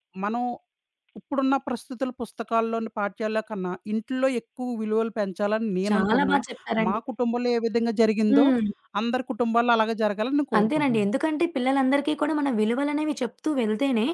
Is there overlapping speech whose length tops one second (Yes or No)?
No